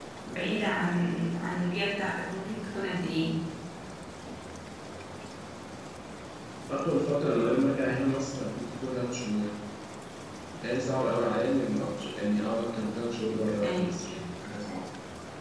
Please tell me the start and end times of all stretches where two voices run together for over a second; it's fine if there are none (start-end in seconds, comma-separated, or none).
none